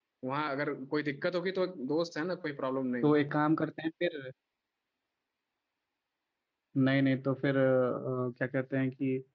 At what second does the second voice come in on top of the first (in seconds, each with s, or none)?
none